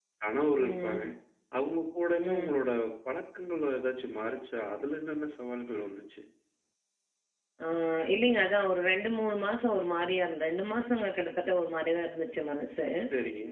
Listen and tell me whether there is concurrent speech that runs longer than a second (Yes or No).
No